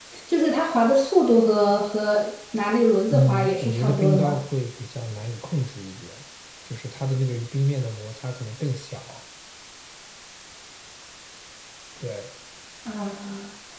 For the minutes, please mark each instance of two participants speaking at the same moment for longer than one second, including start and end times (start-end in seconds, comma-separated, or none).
3.1-4.4